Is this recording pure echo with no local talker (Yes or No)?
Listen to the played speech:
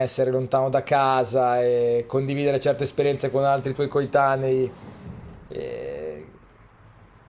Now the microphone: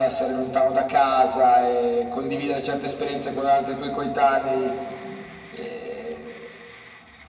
Yes